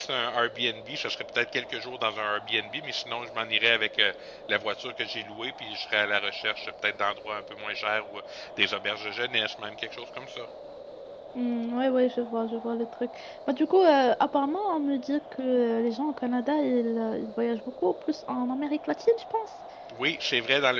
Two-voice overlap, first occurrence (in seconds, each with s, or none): none